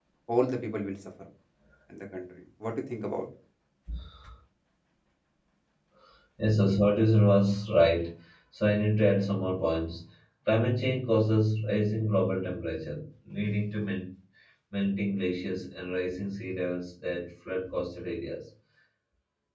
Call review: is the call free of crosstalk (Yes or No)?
Yes